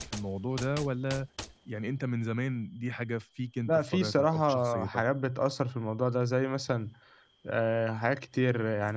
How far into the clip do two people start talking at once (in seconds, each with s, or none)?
3.7 s